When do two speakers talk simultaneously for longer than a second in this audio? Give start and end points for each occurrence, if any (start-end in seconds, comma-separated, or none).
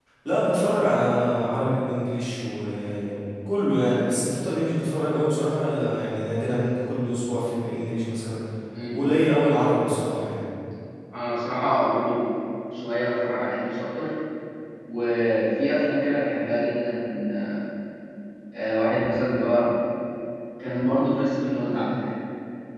none